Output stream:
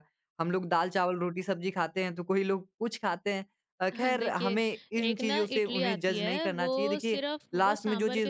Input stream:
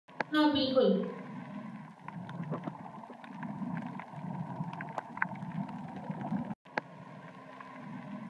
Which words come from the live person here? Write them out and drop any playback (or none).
हाँ, बिल्कुल।